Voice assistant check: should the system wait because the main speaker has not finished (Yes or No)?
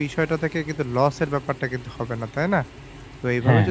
Yes